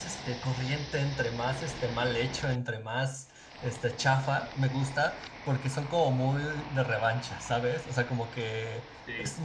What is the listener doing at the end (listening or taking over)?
listening